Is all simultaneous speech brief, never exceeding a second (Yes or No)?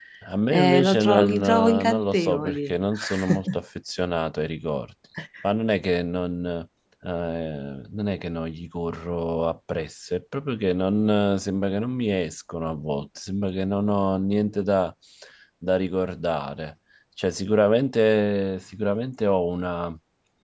No